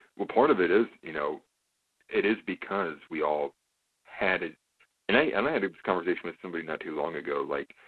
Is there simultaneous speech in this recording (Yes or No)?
No